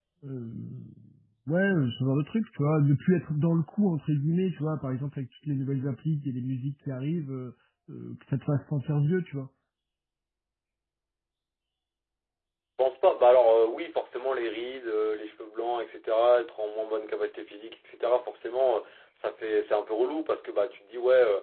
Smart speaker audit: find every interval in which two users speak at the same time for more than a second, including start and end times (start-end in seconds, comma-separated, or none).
none